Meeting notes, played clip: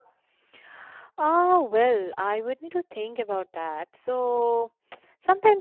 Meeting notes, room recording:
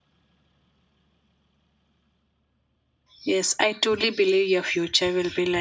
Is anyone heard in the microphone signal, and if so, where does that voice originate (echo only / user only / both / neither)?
user only